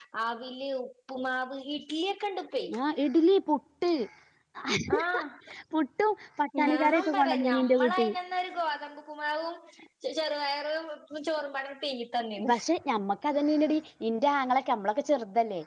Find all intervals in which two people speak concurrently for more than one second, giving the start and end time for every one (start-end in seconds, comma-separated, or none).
6.6-8.1